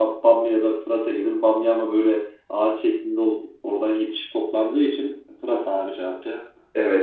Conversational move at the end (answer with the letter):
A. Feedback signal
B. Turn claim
B